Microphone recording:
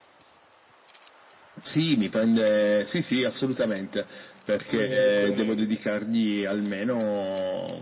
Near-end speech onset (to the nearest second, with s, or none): 5 s